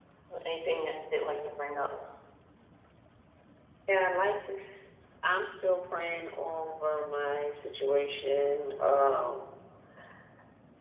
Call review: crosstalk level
none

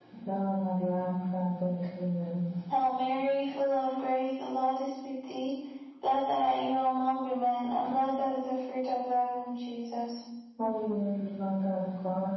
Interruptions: none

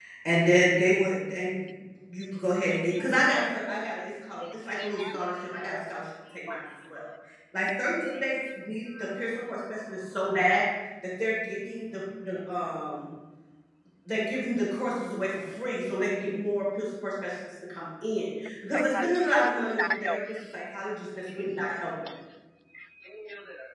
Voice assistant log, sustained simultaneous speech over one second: present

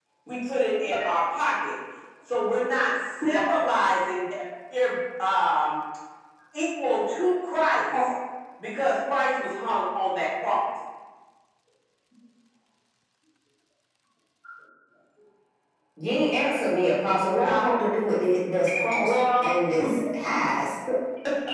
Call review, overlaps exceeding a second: none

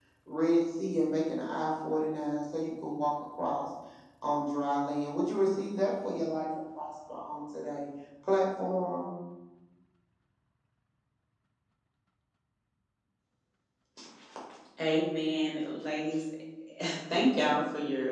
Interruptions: none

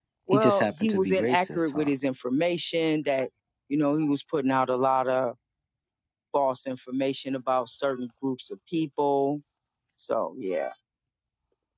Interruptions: present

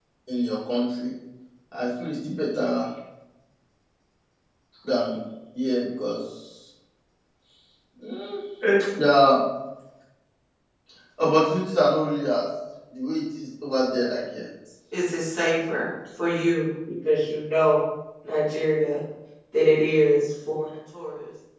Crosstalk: none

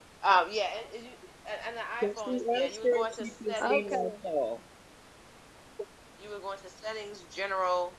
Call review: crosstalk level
present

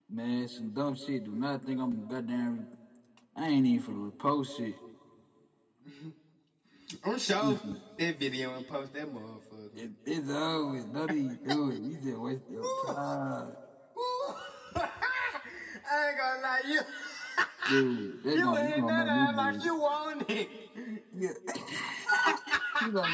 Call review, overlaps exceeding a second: present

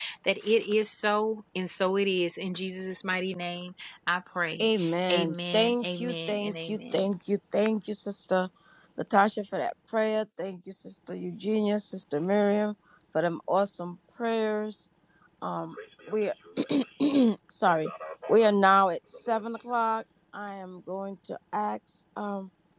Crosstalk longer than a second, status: present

